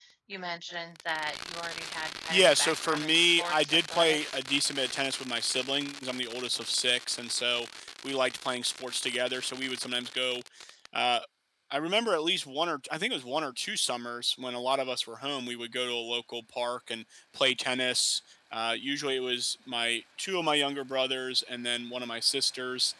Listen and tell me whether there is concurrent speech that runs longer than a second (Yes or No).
Yes